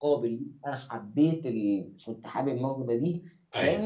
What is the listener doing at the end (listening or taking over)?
listening